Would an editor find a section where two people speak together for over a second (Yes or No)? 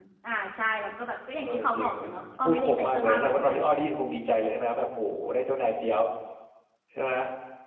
Yes